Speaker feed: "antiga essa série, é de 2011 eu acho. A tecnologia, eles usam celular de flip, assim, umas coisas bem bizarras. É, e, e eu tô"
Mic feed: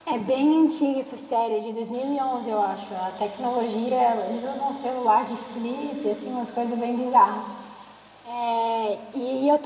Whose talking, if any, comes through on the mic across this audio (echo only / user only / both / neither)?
echo only